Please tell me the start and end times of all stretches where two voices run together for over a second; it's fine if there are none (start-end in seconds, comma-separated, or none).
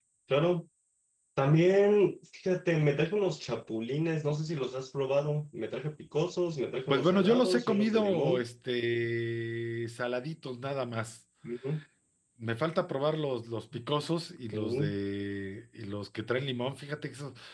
6.9-8.4